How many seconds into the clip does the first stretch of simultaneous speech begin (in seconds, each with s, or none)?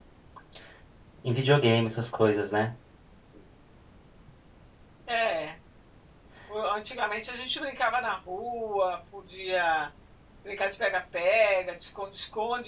none